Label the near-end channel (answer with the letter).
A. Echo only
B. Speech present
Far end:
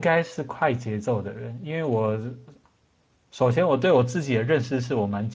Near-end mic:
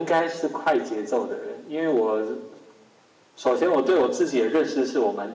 A